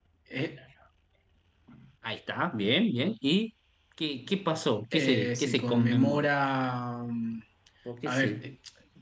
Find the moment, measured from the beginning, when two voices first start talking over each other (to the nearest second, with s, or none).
5 s